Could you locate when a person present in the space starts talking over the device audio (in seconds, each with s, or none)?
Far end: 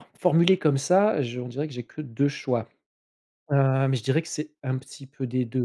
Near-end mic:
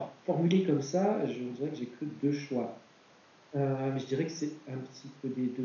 none